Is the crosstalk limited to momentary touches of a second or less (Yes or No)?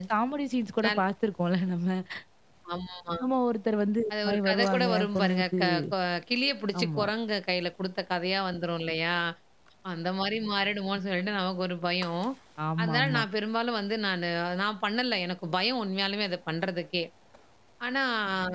No